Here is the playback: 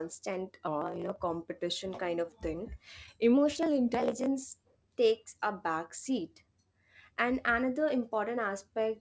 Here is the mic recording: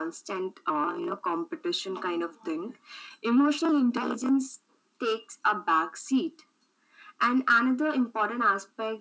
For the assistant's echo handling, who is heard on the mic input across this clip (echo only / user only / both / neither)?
echo only